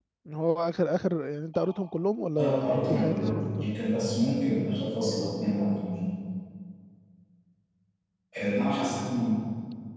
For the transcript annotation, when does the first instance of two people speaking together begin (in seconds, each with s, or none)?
2.4 s